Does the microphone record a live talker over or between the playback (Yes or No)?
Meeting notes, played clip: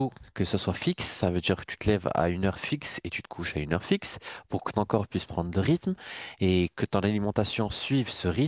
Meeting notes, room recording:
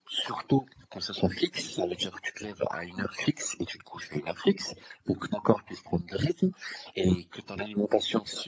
No